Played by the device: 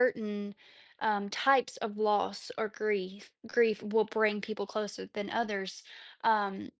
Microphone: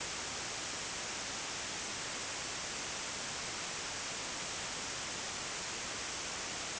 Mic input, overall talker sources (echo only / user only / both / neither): neither